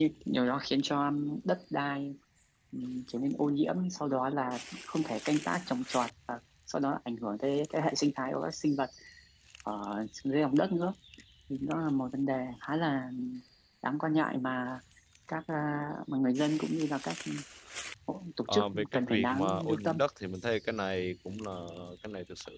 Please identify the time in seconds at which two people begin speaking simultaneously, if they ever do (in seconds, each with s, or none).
18.5 s